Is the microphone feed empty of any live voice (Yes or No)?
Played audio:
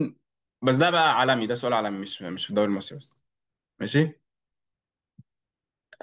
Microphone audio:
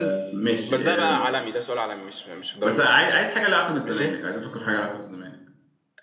No